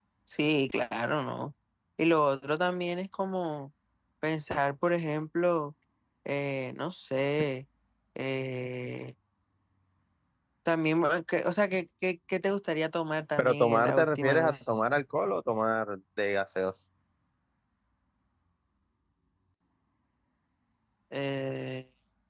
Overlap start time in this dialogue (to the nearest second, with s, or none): 13 s